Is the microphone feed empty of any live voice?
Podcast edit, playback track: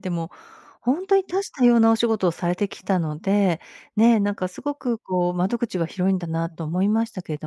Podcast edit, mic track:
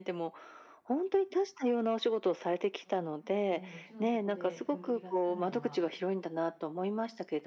No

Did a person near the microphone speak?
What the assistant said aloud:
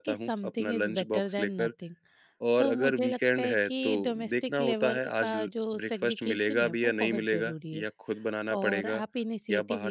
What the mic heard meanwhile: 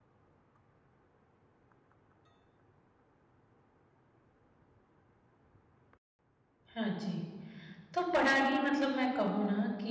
Yes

